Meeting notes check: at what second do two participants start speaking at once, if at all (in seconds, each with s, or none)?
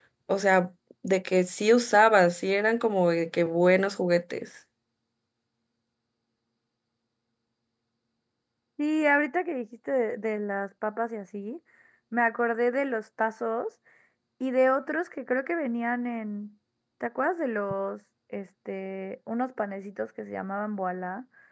none